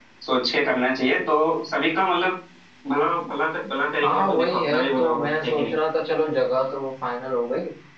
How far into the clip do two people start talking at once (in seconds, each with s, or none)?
4.0 s